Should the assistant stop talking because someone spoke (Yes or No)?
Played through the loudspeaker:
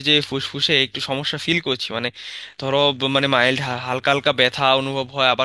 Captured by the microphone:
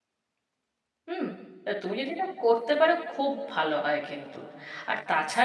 Yes